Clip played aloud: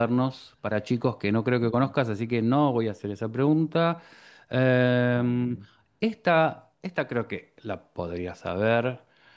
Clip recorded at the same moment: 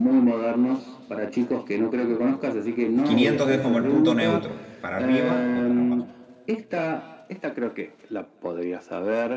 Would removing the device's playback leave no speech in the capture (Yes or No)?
No